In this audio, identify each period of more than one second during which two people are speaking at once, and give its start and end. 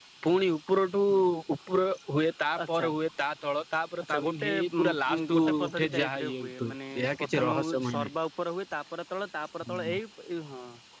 4.1-8.1

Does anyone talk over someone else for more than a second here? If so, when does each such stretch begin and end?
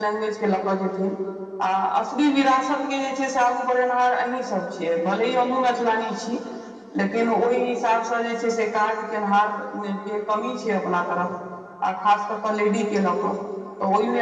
none

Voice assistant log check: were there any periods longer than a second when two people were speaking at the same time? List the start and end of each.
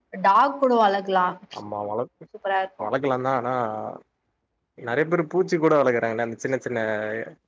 none

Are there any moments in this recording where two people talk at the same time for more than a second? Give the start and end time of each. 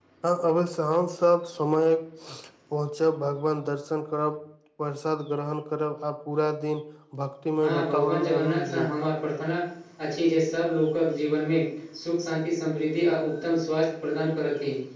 7.6-8.9

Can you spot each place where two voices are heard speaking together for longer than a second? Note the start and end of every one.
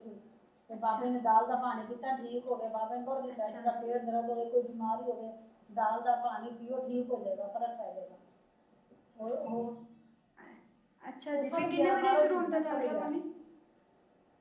11.3-13.2

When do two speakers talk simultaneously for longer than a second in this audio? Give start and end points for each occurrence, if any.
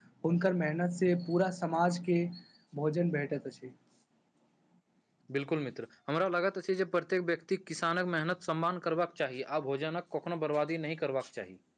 none

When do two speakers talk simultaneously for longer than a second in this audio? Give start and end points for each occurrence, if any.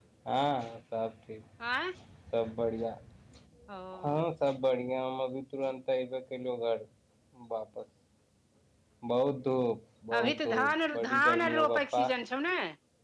10.2-12.0

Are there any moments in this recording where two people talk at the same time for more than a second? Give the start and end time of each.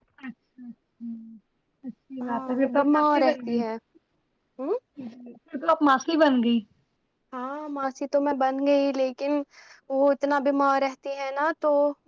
2.2-3.6

